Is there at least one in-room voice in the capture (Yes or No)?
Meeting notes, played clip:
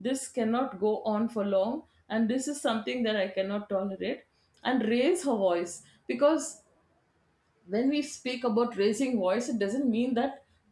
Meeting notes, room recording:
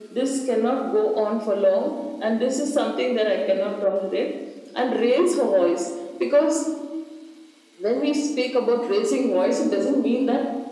No